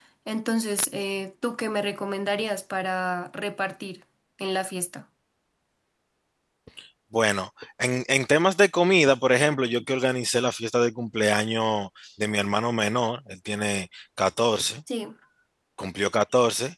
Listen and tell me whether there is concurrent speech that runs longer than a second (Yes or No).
No